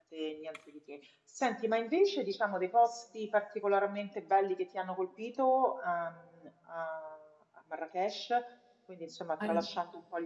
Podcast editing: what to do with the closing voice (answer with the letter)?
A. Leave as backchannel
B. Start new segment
A